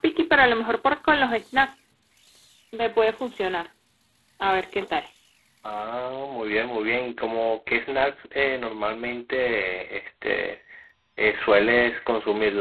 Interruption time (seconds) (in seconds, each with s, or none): none